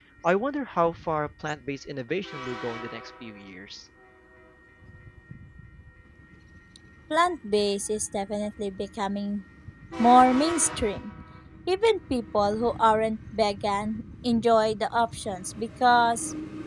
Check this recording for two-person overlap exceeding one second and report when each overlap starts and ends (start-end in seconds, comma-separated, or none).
none